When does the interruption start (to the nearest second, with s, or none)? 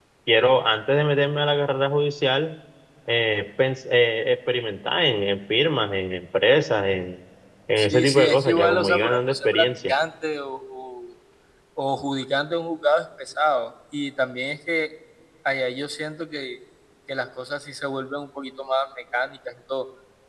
8 s